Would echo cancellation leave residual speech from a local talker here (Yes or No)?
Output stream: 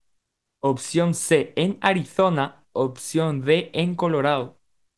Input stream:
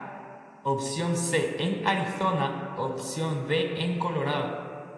No